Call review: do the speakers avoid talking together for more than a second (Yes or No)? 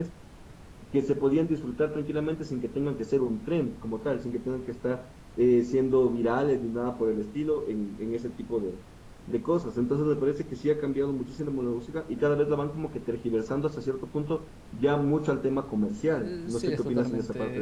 No